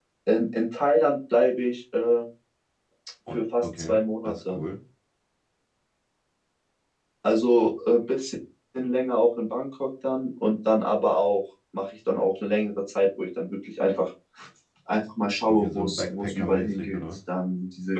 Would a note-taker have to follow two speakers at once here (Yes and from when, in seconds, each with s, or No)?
Yes, from 3.3 s